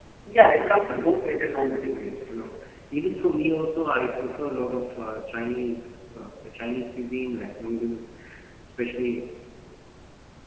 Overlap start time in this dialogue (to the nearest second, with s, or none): 1 s